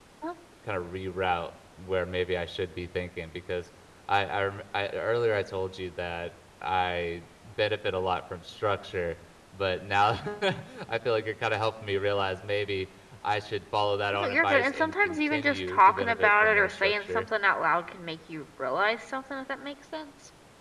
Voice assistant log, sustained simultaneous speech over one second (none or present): present